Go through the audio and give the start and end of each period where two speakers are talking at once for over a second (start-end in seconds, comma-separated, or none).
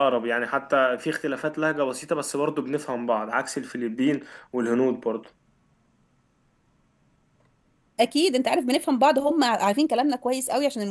none